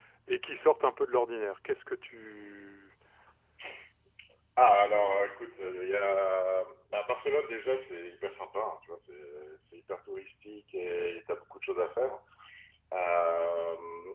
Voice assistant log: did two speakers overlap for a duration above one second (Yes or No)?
No